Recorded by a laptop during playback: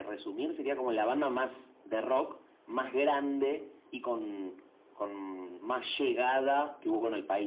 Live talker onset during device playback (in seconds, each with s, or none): none